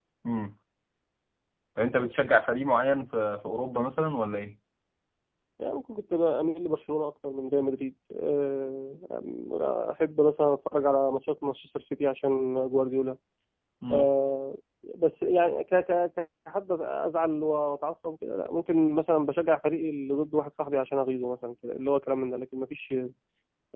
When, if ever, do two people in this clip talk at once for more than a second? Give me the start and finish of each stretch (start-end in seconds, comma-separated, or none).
none